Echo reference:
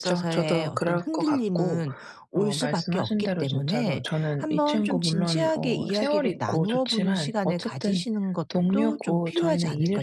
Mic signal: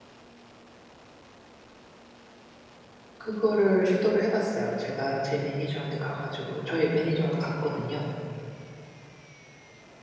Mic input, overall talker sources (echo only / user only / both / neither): user only